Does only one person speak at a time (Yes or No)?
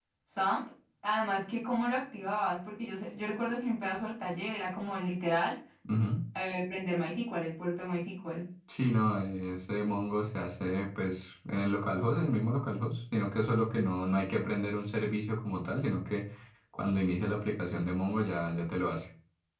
Yes